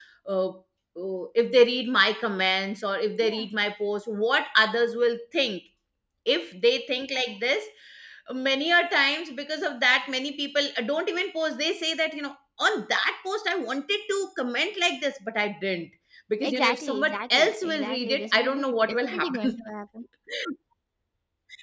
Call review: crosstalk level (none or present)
present